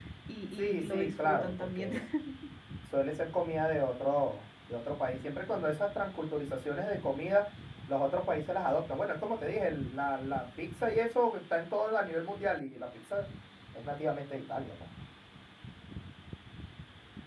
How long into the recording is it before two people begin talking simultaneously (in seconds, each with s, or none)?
0.6 s